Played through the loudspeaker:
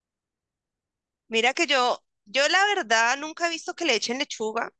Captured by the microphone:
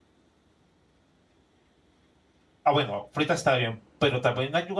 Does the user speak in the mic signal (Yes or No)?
Yes